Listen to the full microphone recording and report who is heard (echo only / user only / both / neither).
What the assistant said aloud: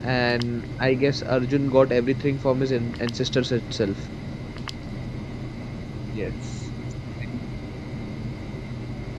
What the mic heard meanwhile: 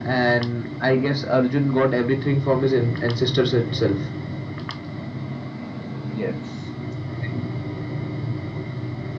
echo only